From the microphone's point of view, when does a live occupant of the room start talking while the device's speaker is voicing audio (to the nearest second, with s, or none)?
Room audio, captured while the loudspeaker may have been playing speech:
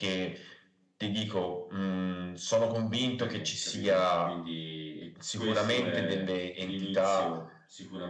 3 s